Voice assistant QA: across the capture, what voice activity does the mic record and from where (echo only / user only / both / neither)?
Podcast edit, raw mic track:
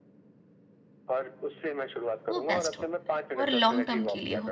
both